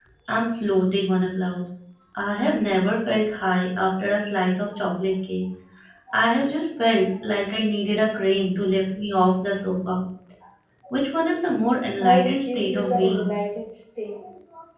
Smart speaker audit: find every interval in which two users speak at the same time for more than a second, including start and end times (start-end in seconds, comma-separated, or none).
12.0-13.3